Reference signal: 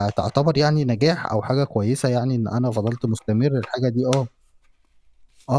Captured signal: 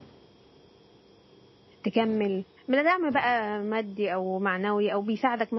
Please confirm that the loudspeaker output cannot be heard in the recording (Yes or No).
Yes